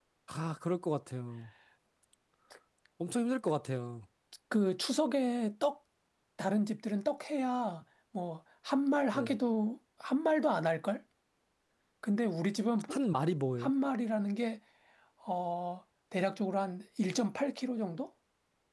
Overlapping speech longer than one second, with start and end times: none

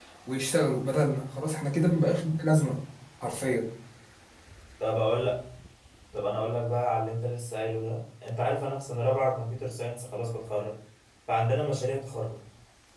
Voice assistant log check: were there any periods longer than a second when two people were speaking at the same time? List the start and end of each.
none

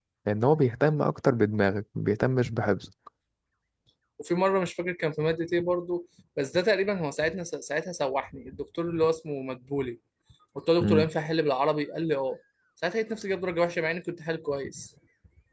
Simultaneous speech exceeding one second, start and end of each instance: none

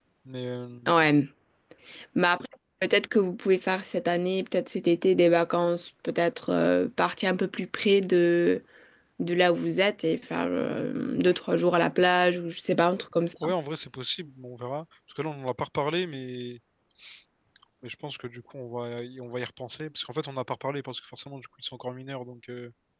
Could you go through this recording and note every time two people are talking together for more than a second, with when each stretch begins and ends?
none

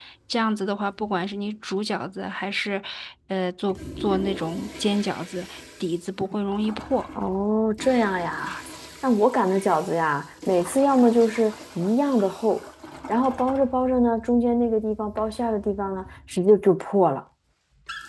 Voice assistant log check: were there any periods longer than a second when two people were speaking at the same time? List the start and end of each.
none

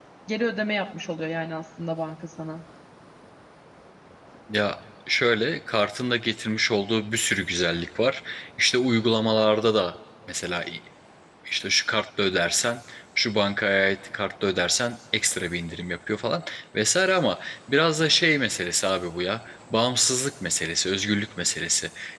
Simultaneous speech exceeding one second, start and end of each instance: none

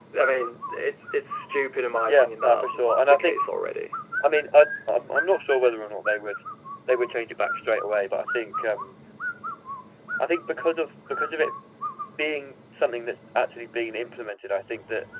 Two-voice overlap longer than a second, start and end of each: 2.1-3.4

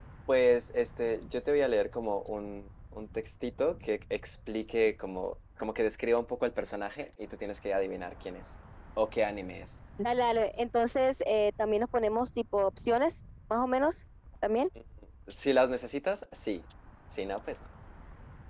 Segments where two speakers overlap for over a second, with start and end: none

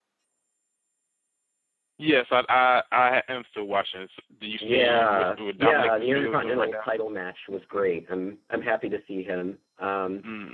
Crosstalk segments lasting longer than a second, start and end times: 4.6-6.9

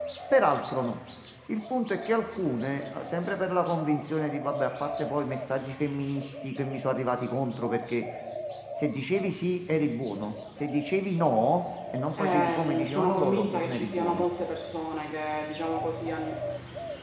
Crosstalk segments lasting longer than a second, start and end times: 12.2-14.3

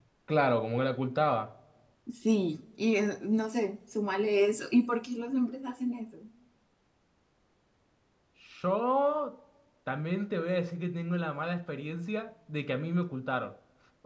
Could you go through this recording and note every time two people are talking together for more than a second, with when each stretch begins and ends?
none

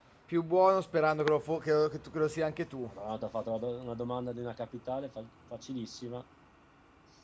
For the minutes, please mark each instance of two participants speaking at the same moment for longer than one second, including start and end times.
none

